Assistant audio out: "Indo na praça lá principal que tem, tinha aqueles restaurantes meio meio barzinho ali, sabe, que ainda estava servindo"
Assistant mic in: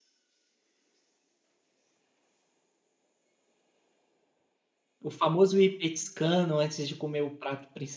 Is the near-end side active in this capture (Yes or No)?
Yes